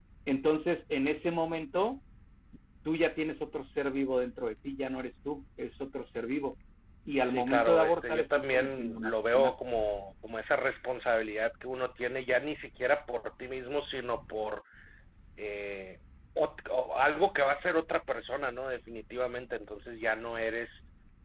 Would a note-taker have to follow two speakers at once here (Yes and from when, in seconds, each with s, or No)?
Yes, from 7.3 s